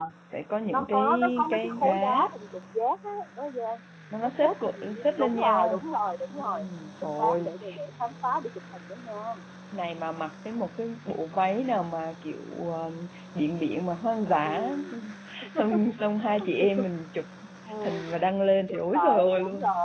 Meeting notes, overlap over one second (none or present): present